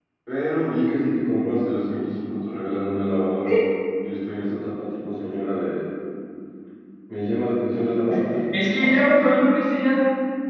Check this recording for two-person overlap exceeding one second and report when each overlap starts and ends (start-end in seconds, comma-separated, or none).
none